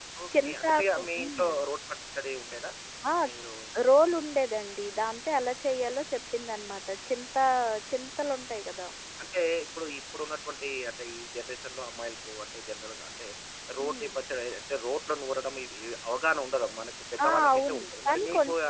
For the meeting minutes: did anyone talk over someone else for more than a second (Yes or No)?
Yes